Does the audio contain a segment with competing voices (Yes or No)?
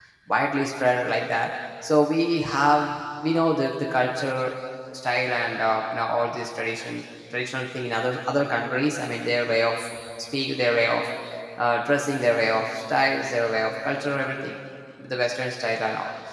No